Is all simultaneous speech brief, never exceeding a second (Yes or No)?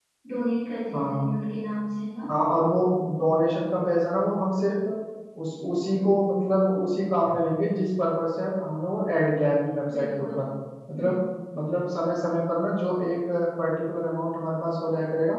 Yes